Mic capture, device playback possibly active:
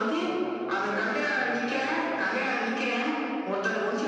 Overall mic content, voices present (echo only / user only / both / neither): both